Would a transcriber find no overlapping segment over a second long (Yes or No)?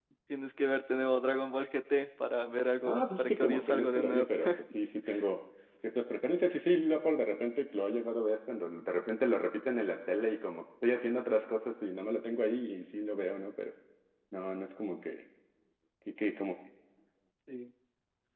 No